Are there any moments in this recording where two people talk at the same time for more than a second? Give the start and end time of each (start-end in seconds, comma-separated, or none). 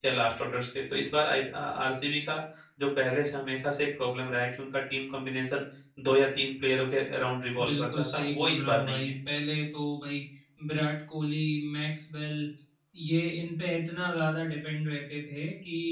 7.6-9.1